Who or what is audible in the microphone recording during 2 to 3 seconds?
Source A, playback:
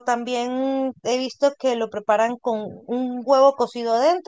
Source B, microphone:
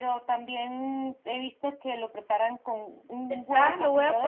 echo only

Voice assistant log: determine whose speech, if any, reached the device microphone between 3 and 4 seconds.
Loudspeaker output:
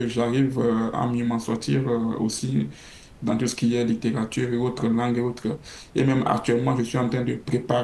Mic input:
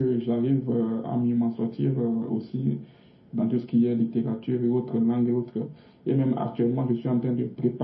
echo only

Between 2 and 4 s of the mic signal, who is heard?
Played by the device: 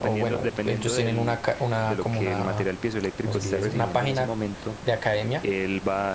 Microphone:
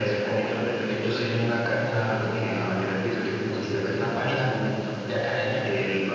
echo only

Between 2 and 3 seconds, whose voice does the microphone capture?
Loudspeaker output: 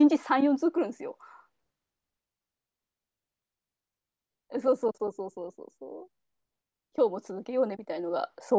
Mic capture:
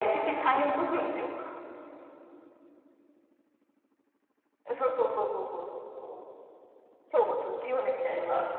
neither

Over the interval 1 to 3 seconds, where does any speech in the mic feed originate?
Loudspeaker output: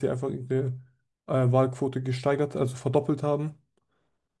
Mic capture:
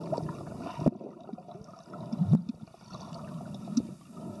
neither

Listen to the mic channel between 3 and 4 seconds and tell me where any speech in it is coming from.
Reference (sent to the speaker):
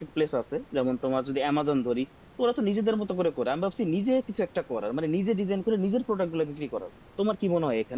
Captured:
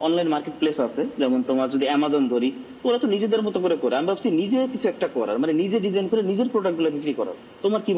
echo only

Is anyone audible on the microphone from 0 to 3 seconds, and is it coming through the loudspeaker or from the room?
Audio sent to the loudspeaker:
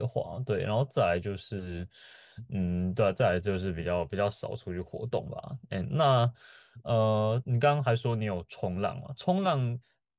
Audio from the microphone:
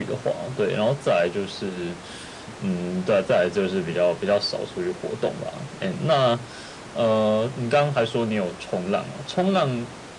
echo only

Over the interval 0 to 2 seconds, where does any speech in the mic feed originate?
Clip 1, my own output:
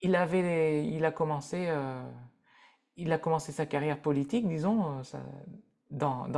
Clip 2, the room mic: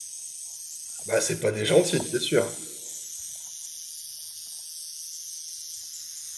user only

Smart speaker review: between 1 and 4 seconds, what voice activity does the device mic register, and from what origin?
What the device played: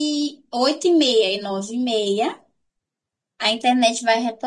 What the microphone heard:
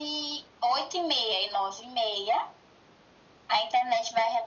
echo only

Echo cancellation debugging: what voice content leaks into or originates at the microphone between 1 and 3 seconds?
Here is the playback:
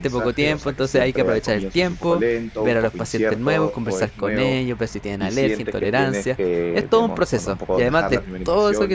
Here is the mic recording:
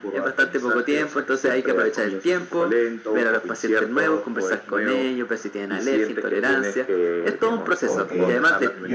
echo only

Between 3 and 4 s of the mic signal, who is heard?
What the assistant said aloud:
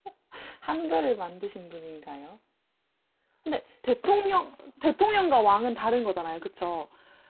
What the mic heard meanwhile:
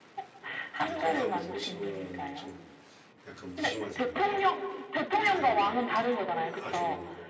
both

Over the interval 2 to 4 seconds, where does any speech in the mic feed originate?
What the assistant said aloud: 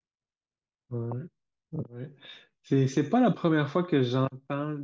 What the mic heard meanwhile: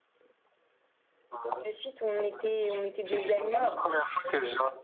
both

